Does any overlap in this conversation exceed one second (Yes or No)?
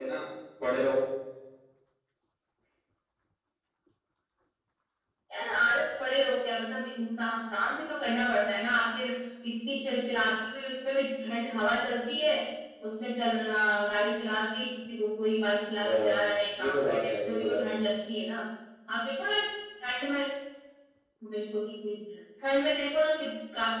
Yes